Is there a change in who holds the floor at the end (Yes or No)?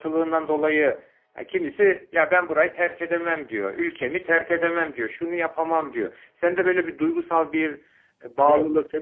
Yes